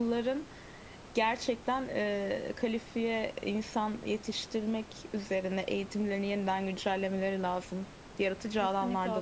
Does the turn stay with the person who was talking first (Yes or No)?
No